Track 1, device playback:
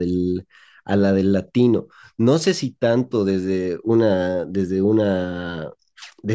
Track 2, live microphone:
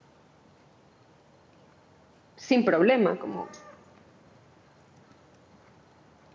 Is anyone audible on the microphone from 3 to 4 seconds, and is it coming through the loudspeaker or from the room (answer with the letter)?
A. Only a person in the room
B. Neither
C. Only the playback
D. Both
A